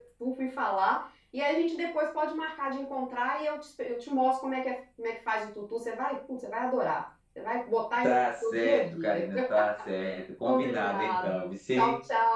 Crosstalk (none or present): present